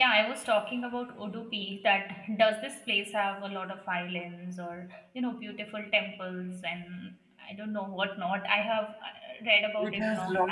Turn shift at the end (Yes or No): Yes